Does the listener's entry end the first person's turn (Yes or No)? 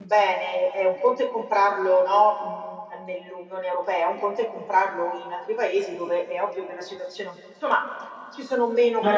Yes